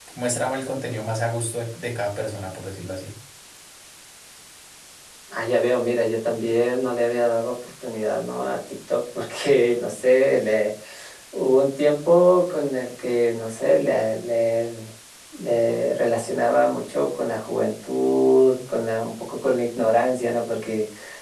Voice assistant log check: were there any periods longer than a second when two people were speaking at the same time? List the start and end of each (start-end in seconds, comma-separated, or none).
none